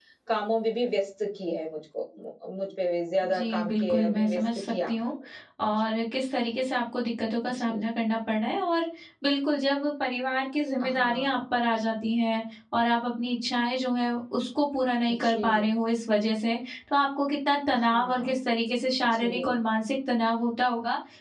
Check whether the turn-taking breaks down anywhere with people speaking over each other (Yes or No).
Yes